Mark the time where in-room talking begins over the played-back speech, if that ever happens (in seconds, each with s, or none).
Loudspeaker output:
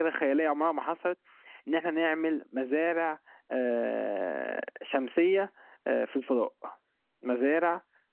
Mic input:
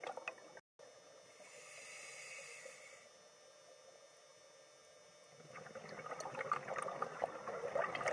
none